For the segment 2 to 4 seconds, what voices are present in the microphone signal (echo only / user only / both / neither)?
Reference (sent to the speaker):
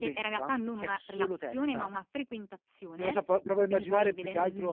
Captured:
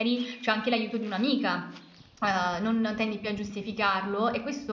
user only